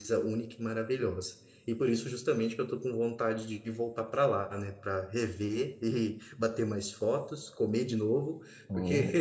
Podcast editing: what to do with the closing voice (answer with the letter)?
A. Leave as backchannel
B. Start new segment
A